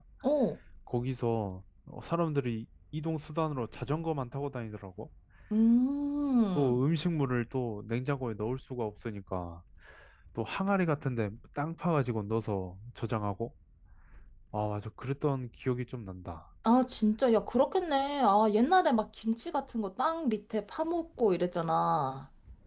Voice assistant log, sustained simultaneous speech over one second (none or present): none